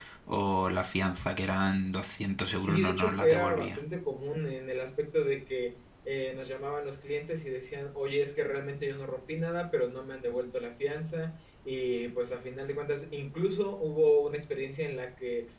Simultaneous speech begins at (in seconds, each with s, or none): 2.6 s